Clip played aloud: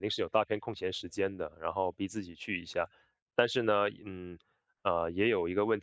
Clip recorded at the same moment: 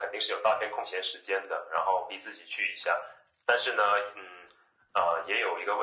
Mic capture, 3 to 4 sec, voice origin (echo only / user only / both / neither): echo only